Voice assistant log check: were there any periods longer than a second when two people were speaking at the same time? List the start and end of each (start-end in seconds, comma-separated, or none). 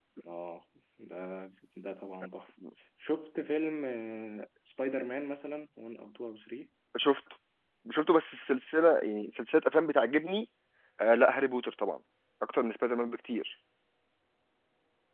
none